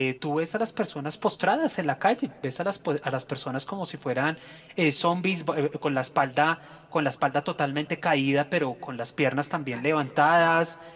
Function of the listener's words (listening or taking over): listening